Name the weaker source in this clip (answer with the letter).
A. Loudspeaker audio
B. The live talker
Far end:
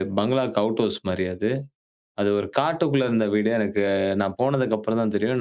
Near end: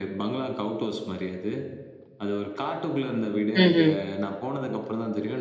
A